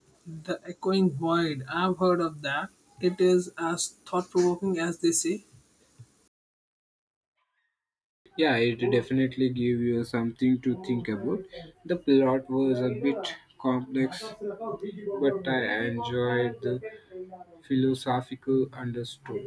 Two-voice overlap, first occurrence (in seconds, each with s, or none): none